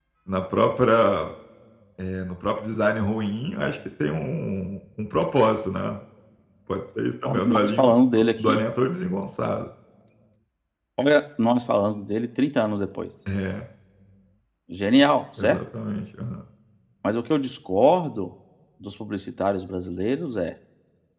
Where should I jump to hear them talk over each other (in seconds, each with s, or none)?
7.2 s